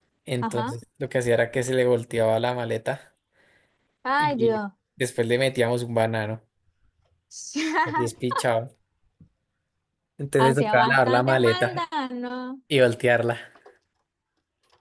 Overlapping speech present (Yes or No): Yes